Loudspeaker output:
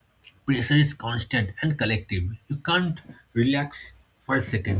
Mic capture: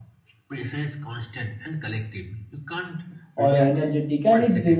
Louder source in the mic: user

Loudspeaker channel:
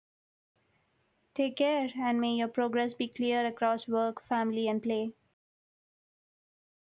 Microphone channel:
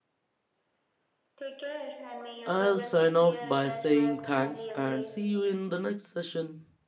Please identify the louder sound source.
user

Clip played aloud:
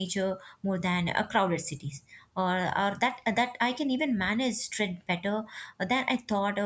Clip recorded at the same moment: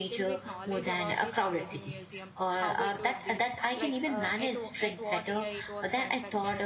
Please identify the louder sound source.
echo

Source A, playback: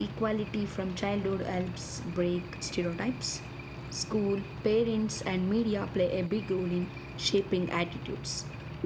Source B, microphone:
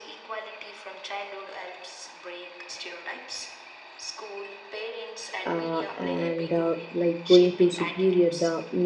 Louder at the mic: user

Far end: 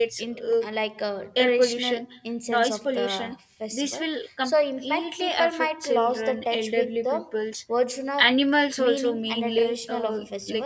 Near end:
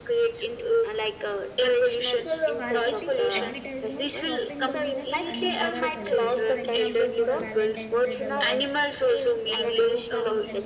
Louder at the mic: echo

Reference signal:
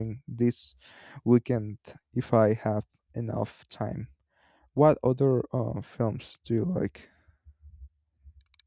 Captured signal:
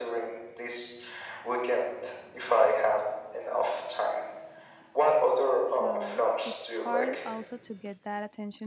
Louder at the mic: echo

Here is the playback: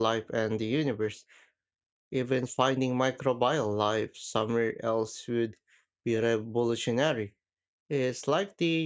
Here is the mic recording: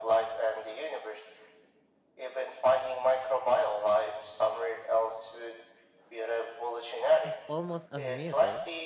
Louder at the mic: echo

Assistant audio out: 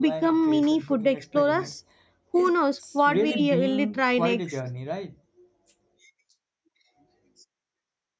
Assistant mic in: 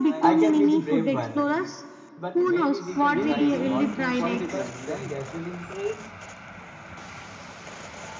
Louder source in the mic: echo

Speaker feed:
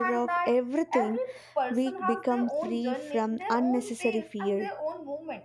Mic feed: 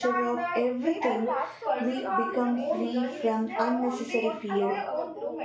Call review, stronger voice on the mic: echo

